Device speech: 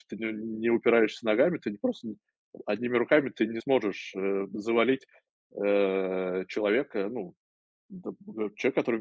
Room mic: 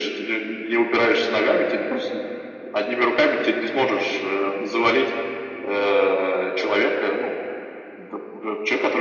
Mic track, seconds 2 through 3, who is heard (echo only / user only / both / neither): echo only